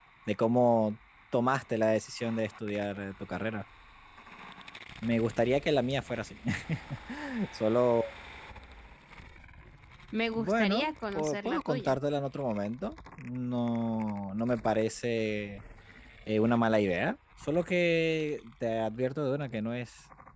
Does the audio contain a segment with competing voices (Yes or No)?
Yes